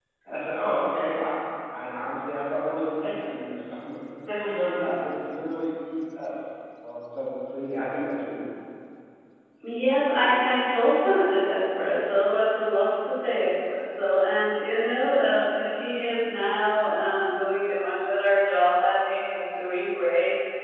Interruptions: none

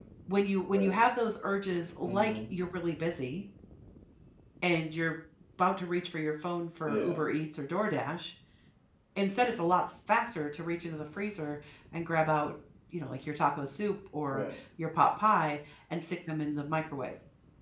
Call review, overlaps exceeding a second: none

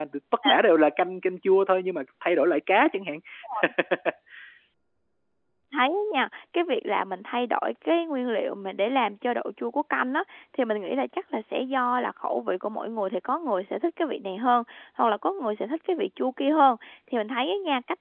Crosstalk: none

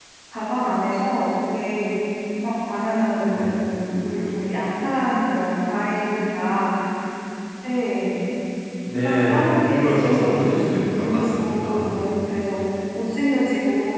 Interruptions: present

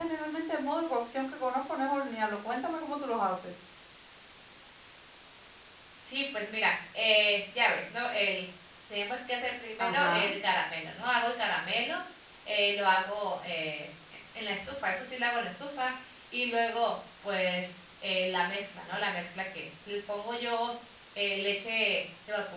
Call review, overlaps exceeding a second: none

